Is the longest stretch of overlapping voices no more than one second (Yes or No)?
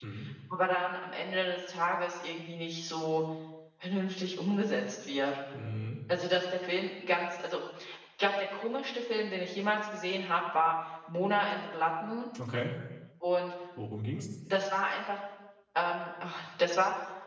Yes